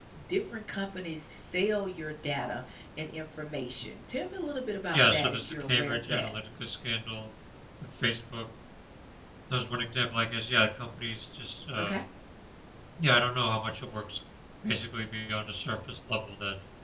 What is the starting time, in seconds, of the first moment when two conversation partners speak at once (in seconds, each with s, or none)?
4.9 s